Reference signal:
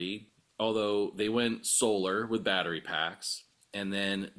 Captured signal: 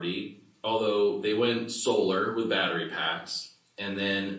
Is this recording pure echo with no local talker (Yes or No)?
Yes